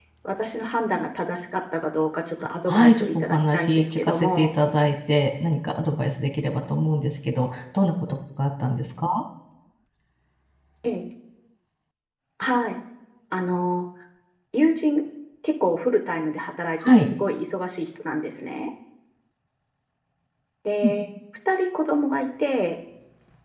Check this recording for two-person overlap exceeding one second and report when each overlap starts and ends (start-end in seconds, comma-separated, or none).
2.7-4.5